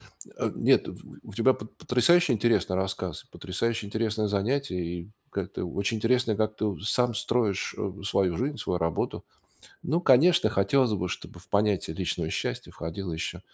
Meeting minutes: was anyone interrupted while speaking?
No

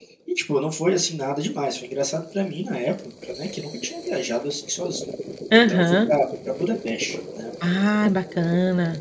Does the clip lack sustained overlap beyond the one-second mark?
Yes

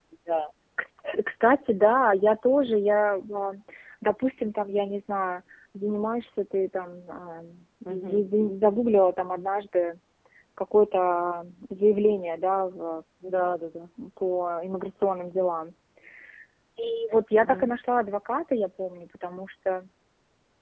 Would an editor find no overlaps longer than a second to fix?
Yes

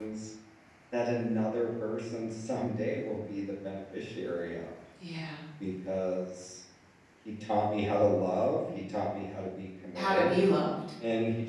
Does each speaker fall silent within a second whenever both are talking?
Yes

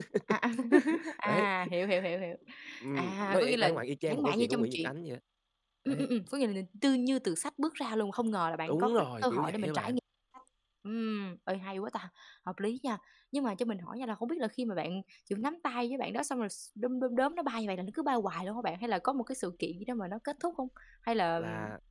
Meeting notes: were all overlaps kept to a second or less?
No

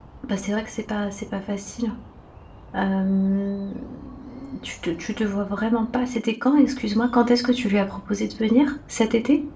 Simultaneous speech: No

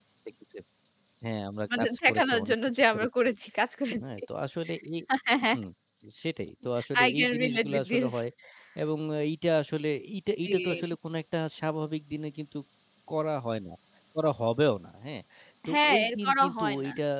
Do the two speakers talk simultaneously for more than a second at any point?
Yes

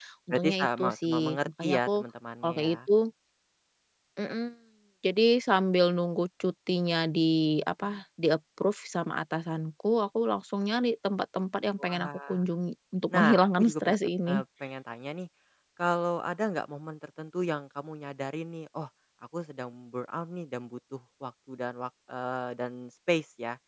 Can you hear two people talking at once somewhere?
Yes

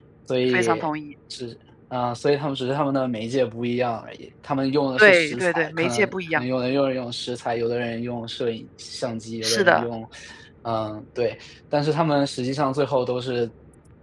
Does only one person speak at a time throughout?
No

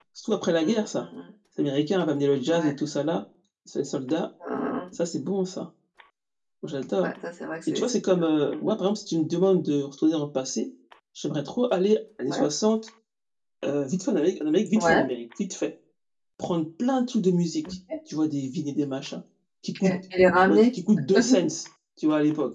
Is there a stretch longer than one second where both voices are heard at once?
No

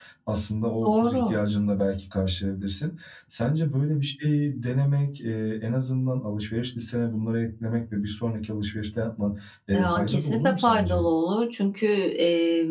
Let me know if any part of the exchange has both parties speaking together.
Yes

